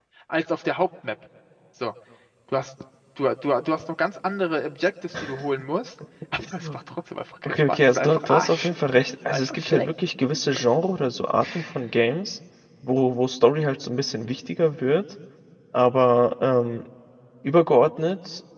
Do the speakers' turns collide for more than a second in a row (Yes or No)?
Yes